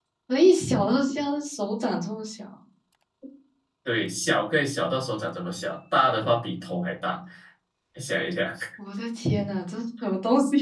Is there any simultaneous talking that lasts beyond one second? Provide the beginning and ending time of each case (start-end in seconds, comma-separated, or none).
none